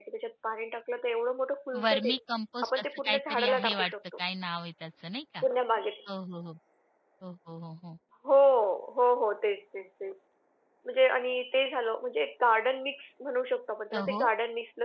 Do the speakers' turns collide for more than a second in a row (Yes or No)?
Yes